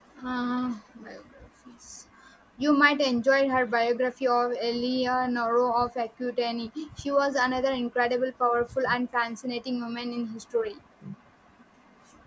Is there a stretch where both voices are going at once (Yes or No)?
No